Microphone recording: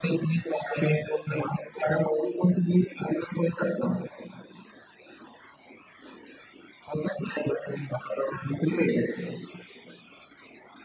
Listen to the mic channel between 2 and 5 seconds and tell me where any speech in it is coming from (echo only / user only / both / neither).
echo only